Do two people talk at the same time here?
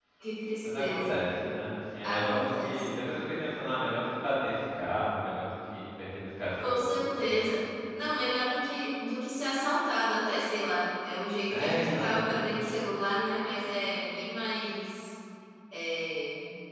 Yes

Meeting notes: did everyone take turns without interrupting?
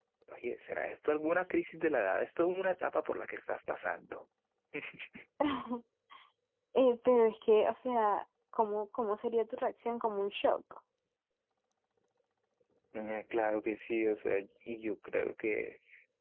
Yes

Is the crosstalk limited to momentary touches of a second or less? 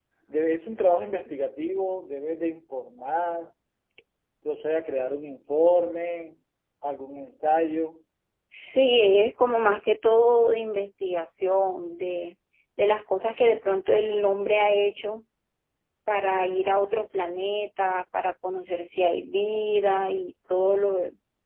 Yes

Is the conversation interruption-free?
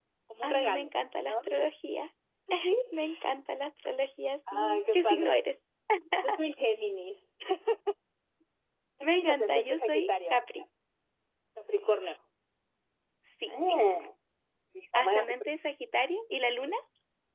No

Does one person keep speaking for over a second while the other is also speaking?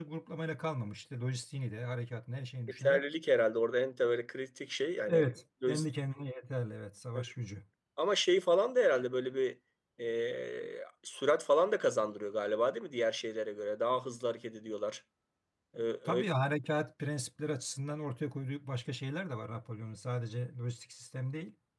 No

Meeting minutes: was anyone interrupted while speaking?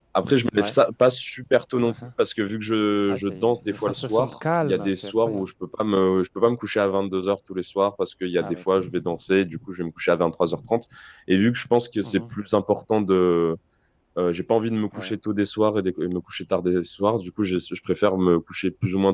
Yes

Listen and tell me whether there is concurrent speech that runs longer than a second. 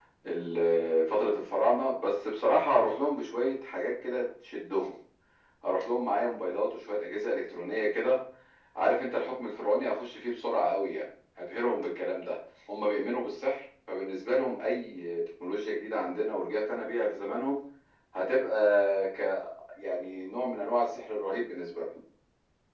No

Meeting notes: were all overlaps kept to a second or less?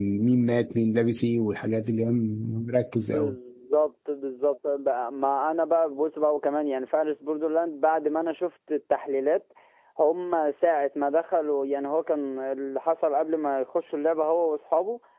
Yes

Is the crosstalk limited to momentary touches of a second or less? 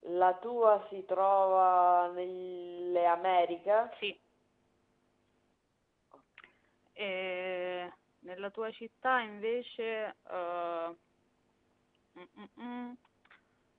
Yes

